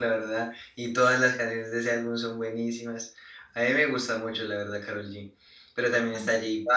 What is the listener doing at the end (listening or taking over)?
listening